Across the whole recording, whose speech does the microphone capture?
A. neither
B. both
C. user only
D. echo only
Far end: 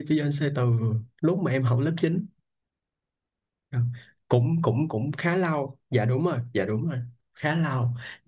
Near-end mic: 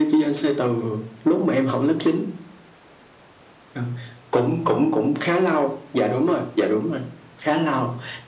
D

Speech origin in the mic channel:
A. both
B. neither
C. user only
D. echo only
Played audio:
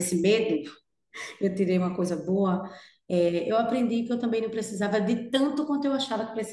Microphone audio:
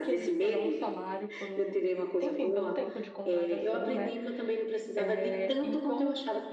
A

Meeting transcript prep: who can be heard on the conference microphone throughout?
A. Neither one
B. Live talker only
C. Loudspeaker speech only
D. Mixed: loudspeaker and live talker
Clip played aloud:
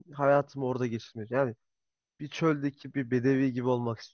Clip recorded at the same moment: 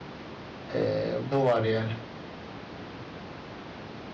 B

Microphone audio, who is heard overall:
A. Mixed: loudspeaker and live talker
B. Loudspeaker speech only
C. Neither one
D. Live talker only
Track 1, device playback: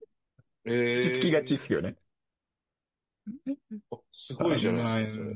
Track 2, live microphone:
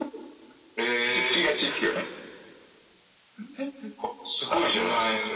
B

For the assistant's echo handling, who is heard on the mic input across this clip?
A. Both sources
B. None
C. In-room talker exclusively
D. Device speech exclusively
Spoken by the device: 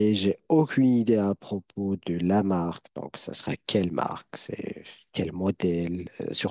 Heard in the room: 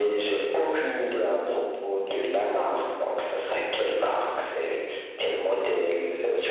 D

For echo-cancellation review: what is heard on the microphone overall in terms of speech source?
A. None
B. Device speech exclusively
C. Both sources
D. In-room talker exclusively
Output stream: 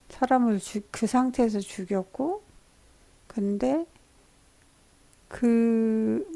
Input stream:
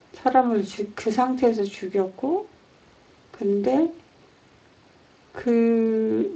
B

